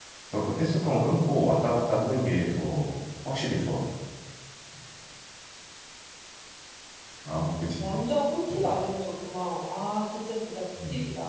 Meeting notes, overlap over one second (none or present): none